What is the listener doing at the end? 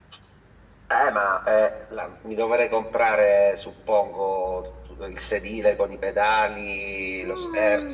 taking over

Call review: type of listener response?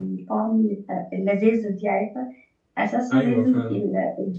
listening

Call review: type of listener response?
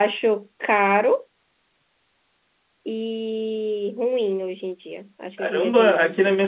taking over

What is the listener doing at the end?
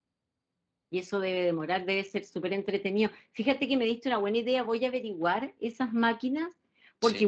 listening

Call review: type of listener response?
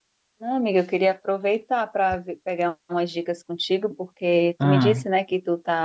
listening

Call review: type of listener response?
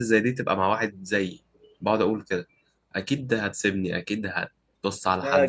taking over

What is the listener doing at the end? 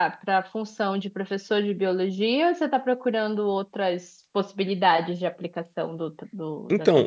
taking over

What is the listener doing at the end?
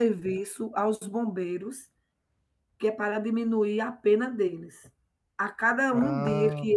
listening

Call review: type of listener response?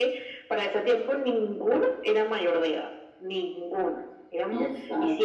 listening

